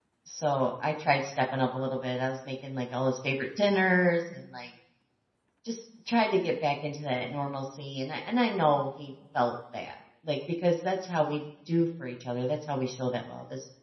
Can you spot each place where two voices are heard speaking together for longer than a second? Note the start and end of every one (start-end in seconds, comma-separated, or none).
none